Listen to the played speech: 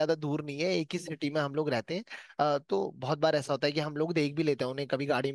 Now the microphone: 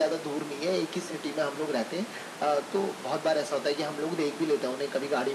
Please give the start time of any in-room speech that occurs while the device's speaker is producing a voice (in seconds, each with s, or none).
none